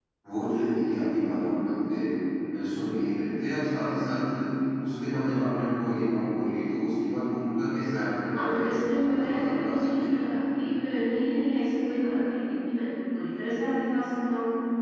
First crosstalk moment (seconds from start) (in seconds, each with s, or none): 8.3 s